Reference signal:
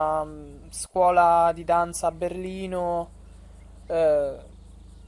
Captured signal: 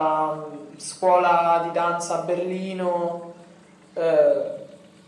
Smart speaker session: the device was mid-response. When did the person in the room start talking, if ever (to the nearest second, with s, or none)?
none